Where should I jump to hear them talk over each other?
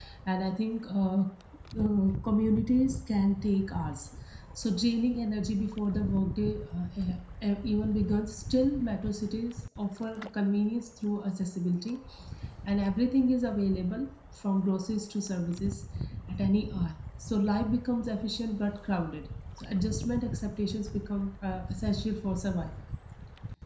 none

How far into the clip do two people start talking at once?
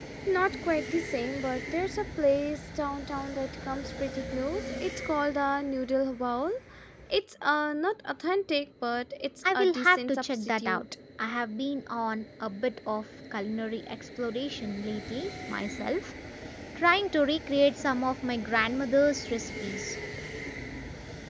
9 s

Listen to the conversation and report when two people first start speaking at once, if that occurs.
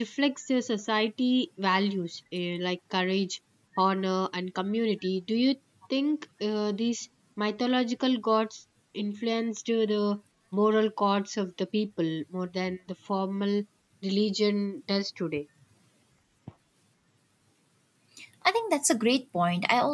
none

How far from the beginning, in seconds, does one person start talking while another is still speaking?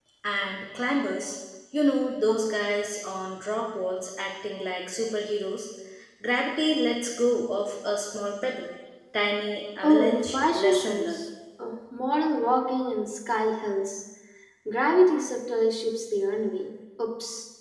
10 s

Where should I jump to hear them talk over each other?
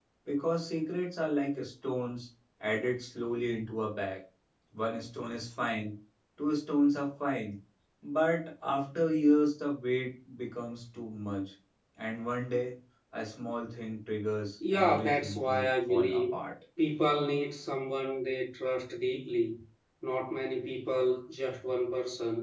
15 s

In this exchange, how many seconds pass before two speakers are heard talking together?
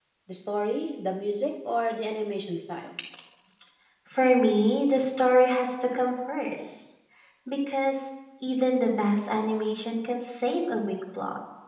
none

